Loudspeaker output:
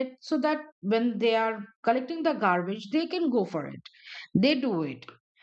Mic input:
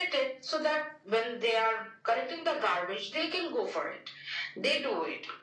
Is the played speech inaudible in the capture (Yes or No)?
No